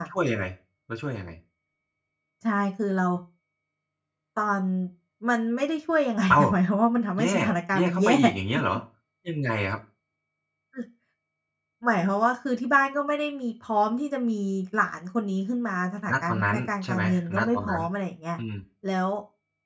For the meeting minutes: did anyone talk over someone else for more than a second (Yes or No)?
Yes